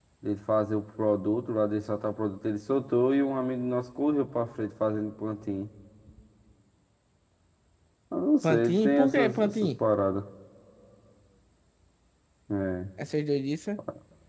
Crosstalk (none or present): present